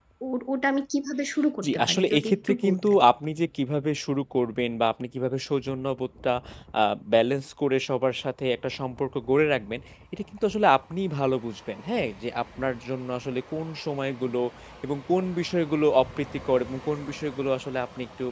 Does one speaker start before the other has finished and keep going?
Yes, from 1.6 s

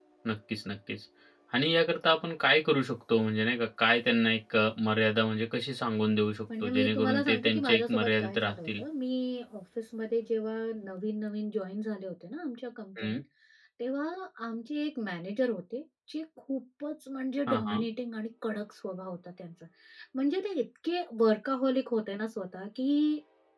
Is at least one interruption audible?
Yes, from 6.6 s

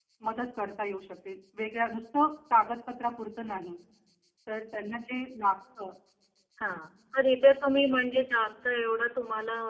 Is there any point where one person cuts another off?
No

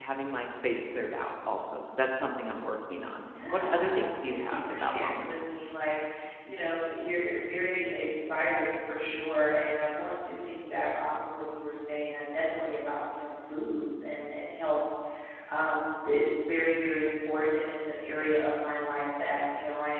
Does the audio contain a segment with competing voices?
Yes, from 3.3 s

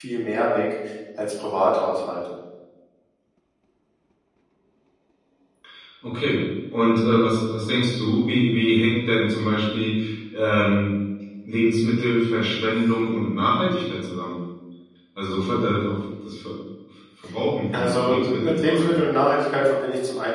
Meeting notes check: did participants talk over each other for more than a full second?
Yes, from 17.7 s

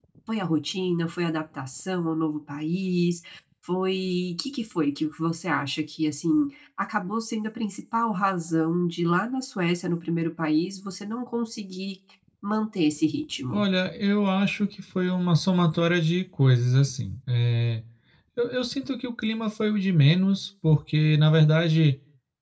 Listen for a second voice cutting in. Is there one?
No

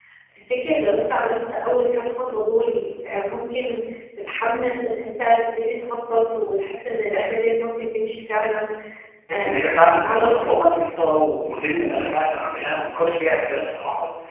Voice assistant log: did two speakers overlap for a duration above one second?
Yes, from 9.3 s

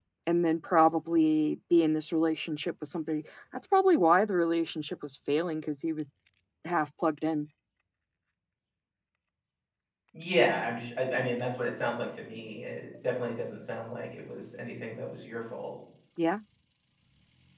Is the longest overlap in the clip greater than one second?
No

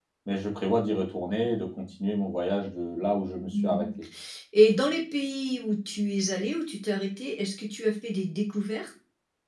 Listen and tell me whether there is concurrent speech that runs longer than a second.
No

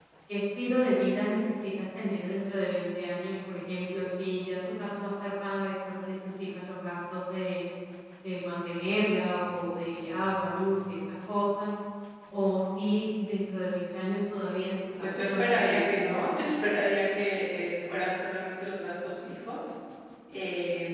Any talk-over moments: Yes, from 15.0 s

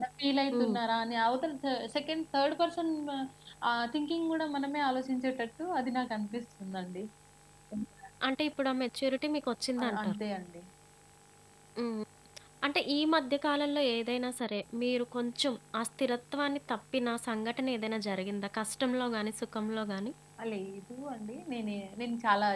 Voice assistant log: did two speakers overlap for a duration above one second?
No

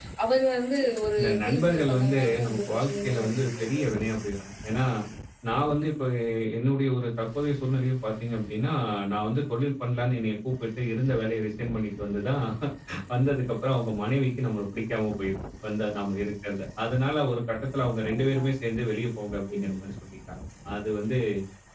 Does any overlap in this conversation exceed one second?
Yes, from 1.2 s

